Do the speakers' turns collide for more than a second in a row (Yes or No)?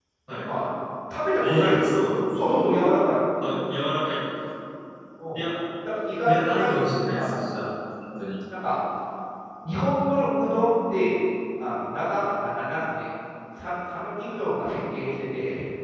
Yes